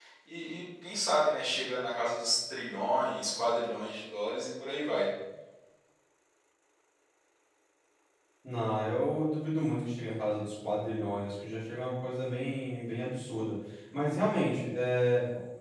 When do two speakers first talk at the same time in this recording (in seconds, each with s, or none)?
none